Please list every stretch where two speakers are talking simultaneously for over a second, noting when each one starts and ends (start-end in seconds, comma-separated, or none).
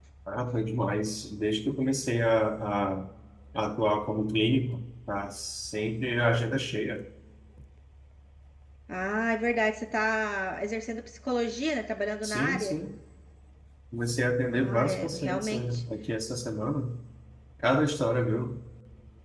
14.5-15.8